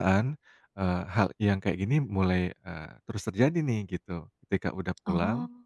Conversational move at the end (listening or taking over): listening